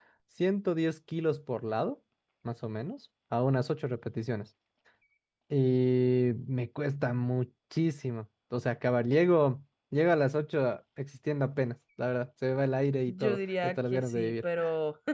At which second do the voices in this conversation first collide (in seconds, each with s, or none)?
13.1 s